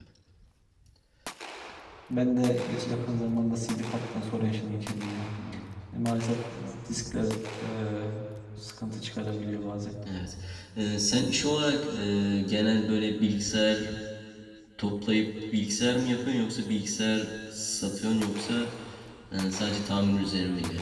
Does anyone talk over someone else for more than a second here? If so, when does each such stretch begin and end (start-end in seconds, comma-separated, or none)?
none